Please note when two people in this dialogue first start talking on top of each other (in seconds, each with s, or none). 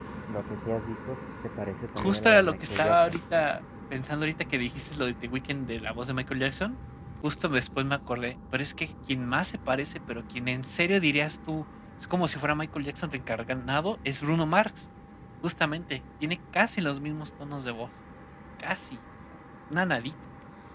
2.0 s